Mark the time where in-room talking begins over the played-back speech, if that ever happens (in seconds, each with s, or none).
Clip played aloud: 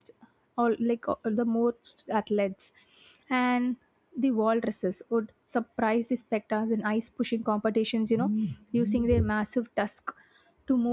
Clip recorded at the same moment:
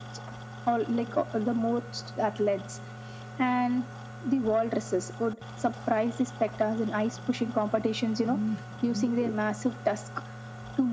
none